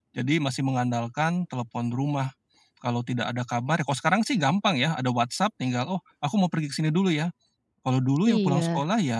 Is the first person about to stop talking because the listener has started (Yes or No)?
No